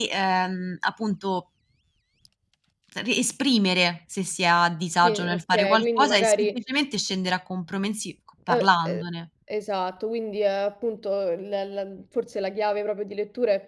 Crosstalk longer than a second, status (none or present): present